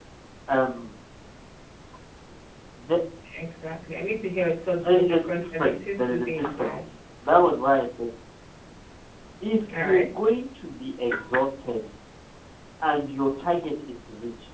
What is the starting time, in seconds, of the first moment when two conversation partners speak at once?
5 s

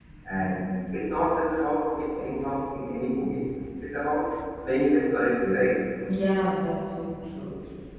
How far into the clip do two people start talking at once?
none

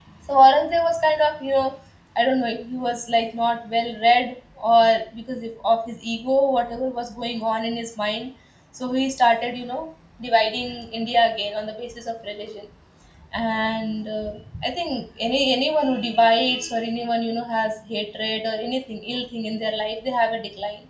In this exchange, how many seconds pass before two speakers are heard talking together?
none

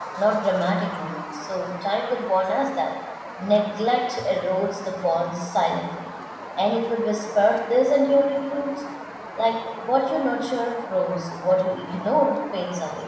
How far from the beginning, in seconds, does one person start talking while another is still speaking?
none

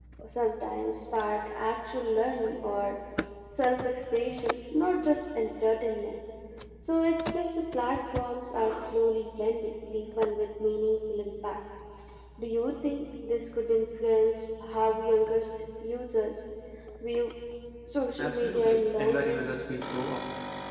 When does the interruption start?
18 s

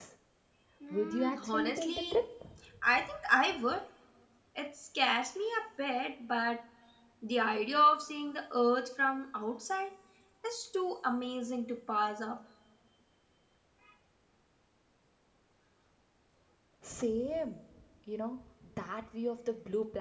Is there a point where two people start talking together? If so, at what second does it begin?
1 s

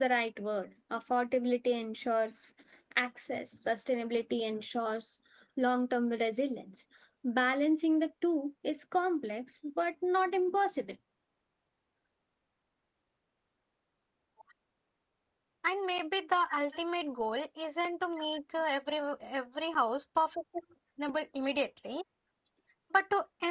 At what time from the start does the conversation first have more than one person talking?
none

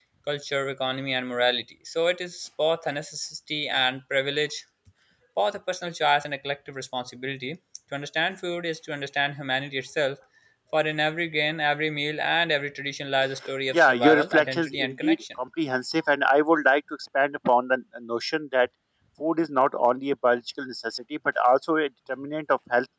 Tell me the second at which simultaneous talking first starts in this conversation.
14 s

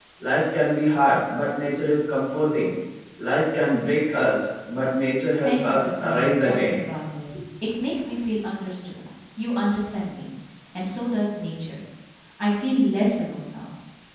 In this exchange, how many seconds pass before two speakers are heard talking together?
5 s

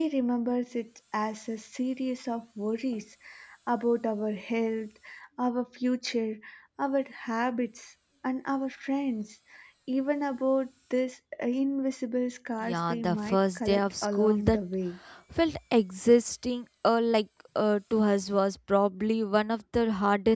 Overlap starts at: 13 s

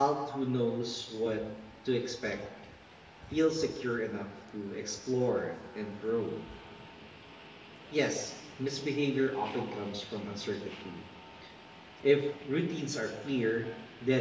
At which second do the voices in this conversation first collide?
none

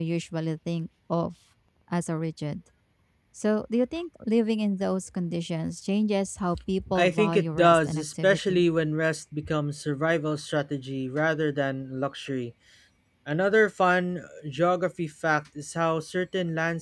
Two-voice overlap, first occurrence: 7 s

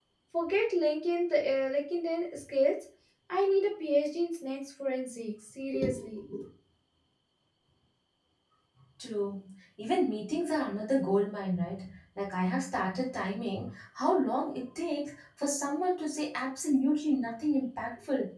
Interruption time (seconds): none

